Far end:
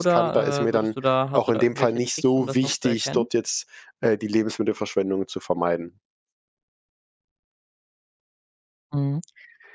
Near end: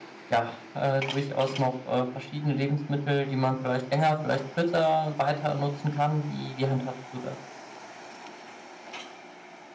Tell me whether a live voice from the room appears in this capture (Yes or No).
Yes